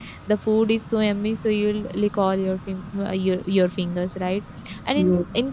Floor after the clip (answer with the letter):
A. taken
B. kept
B